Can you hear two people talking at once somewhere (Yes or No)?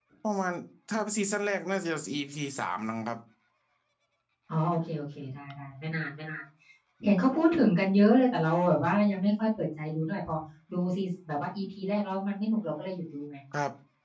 No